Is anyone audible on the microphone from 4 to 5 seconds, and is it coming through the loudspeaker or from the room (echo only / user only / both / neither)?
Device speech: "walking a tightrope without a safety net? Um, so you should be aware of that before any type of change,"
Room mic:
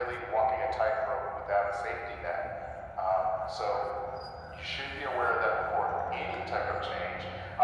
echo only